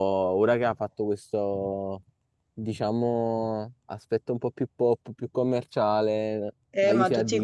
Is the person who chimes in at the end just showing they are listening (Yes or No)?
No